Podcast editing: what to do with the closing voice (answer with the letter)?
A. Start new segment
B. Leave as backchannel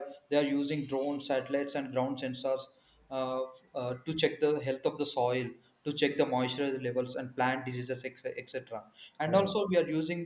B